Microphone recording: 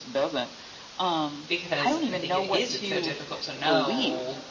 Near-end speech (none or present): present